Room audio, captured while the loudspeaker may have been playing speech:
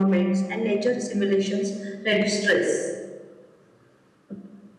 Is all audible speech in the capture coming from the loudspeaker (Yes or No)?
Yes